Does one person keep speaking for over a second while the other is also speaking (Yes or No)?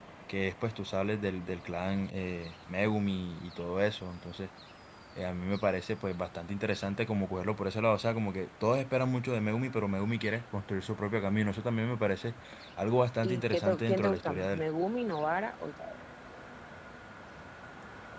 Yes